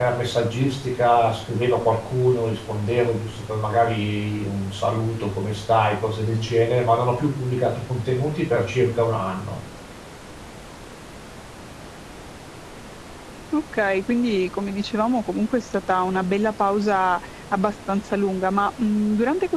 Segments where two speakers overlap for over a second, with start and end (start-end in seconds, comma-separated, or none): none